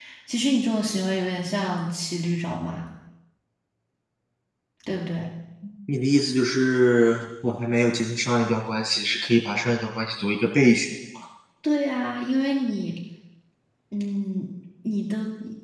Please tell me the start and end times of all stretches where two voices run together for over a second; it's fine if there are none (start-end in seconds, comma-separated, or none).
none